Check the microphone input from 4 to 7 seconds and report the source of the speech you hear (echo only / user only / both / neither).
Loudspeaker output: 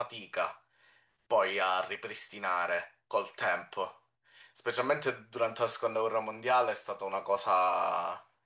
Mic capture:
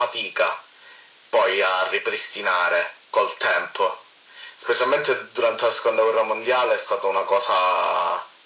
echo only